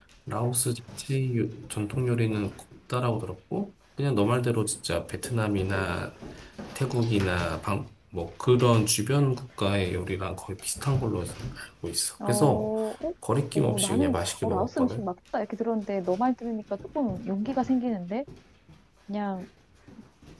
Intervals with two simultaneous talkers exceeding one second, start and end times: 13.6-15.0

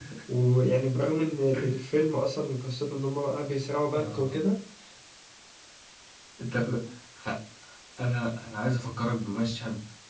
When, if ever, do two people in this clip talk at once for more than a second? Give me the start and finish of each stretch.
none

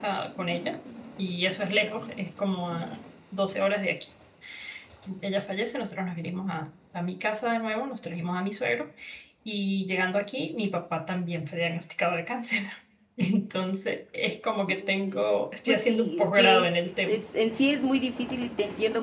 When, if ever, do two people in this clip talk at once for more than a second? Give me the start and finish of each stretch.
15.7-17.2

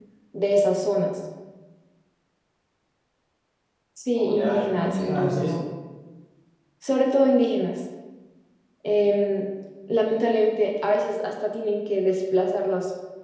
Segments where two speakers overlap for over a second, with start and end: 4.2-5.6

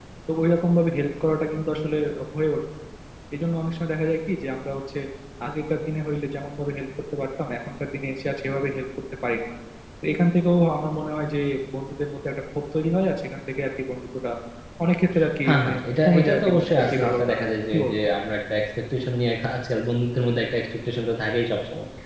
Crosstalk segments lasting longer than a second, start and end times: 15.5-18.0

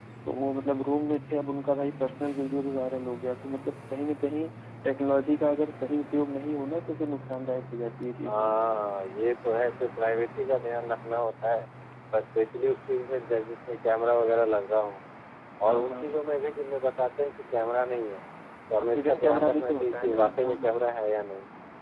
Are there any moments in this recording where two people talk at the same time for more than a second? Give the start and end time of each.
18.9-20.8

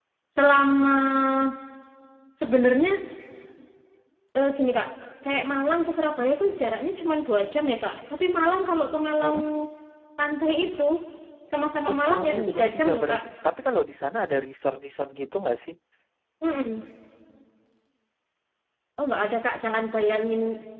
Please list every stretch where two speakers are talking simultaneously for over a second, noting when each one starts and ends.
11.9-13.2

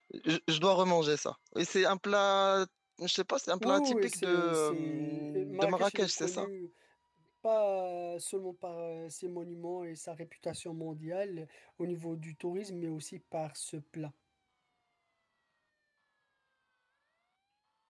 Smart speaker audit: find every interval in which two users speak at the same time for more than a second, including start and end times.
3.6-6.5

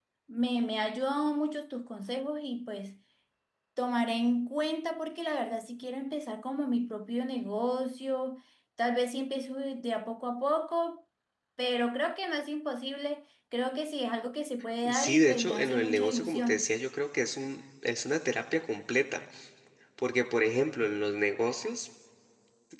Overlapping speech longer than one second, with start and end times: 14.9-16.7

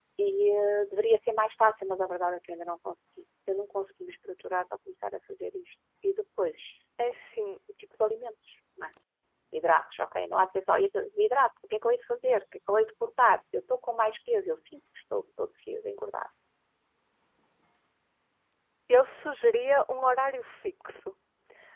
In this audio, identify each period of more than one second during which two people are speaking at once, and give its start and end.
none

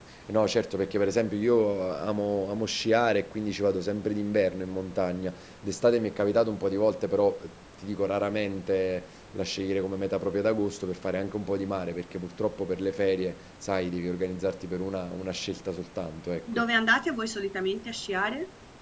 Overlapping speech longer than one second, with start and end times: none

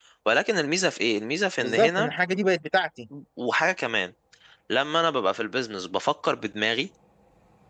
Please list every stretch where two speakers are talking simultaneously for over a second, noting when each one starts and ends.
none

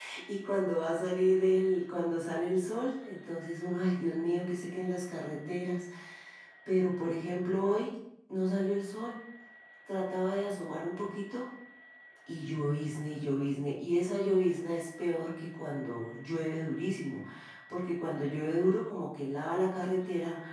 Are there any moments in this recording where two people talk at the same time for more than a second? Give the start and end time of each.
none

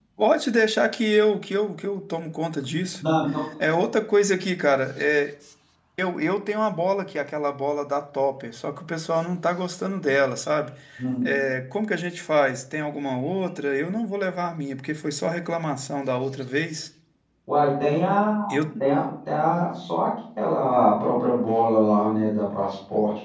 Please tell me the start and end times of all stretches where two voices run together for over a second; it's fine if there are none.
none

